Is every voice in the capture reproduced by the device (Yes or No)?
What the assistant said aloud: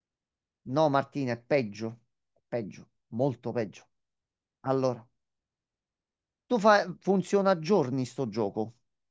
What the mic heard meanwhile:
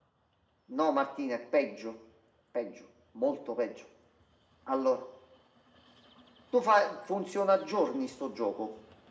Yes